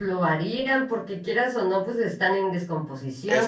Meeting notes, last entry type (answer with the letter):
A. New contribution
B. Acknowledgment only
B